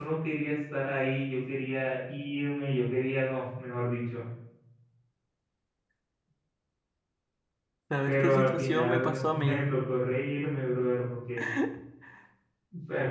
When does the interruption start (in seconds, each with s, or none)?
8.0 s